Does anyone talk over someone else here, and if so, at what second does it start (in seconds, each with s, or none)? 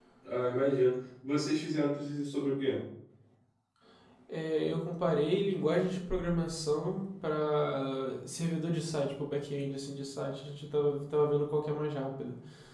none